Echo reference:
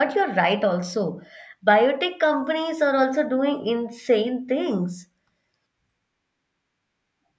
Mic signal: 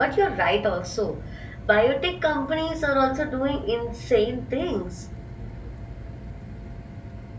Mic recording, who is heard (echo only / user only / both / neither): echo only